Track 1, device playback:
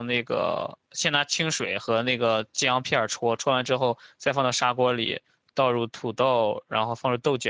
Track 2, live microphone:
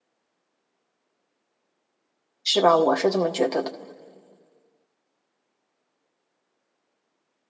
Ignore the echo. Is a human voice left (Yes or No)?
Yes